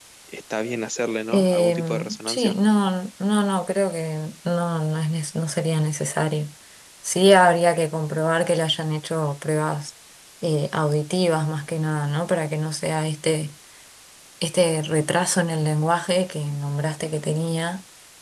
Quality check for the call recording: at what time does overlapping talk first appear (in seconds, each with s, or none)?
1.3 s